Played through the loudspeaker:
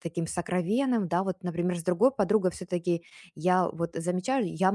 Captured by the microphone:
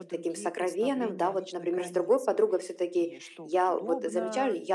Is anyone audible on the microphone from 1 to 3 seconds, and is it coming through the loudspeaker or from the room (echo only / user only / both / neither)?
both